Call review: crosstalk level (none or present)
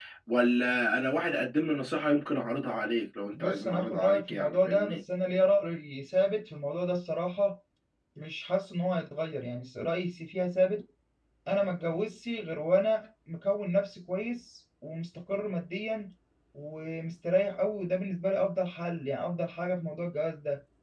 present